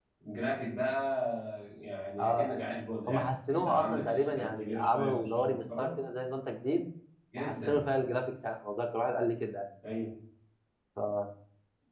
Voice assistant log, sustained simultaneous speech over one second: present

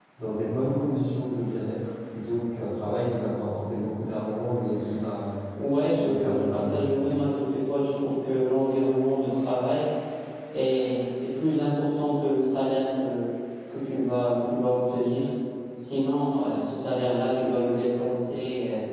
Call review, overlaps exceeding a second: present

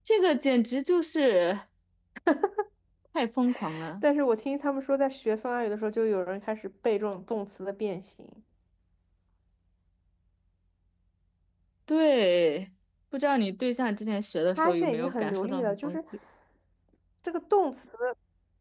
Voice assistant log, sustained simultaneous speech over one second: present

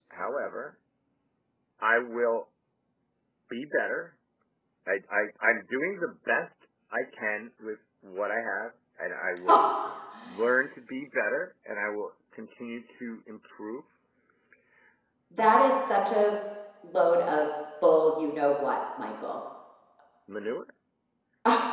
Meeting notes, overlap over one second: none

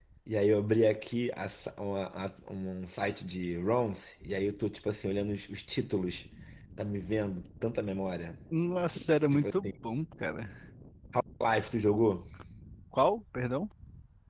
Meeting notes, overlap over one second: none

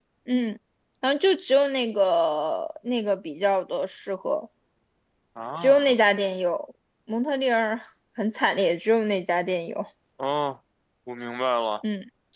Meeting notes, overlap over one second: none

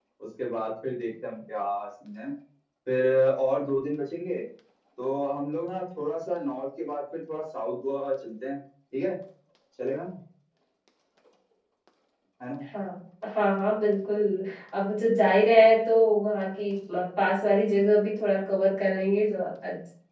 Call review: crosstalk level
none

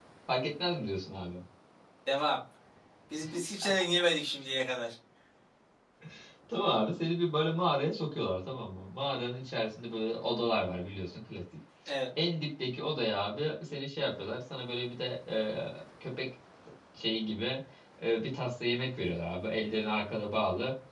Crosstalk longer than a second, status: none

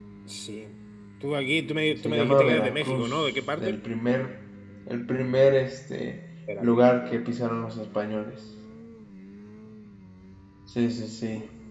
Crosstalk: present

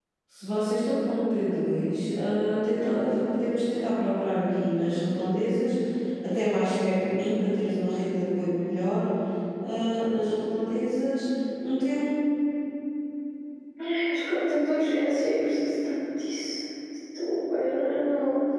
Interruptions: none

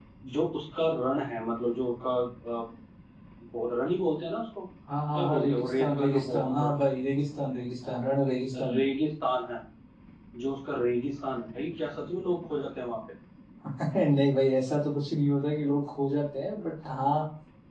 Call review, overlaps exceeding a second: present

